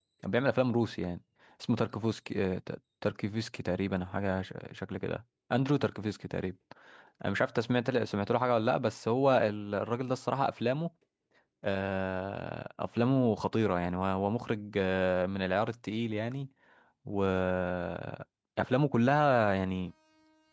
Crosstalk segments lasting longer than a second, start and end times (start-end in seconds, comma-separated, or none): none